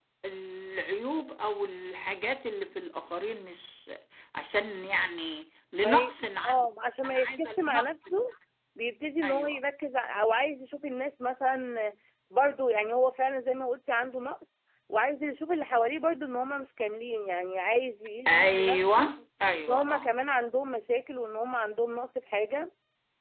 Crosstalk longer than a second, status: present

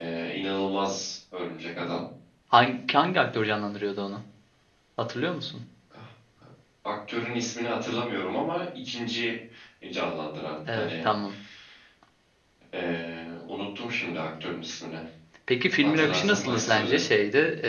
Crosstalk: present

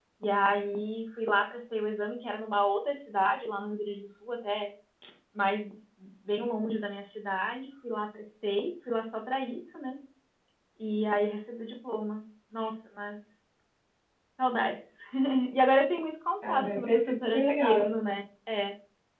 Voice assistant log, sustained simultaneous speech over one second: present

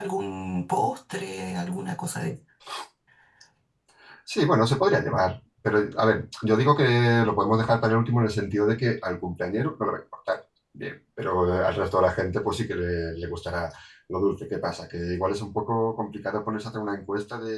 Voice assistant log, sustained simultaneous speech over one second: none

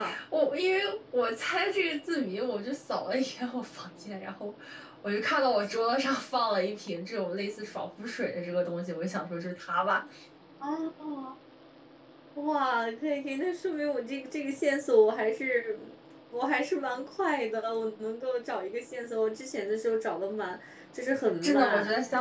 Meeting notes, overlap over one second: none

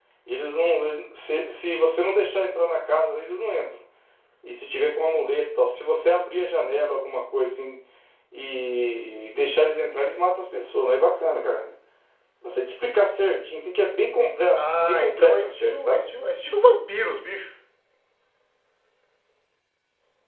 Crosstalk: present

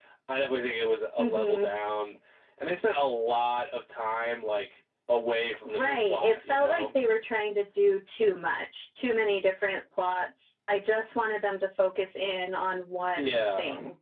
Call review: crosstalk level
present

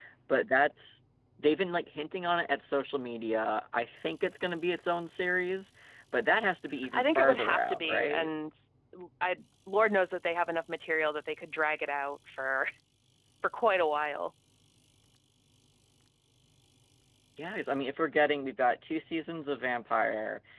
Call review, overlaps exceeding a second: present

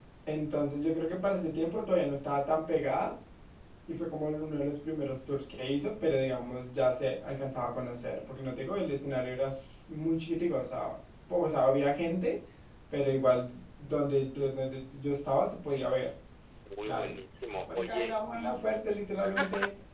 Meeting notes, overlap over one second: present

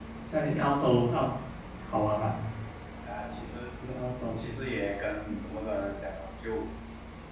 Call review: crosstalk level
none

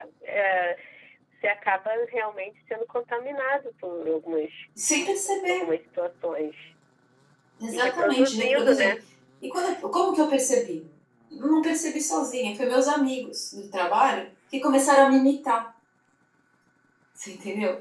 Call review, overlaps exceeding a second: present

